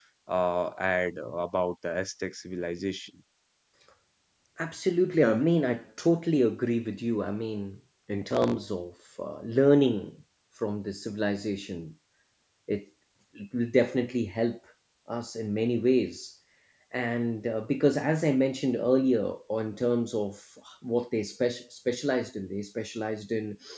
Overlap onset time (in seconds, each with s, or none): none